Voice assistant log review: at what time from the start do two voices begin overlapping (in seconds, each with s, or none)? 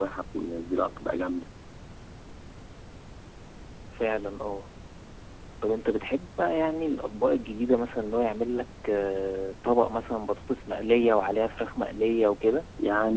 none